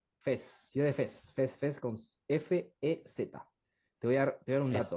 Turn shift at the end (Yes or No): No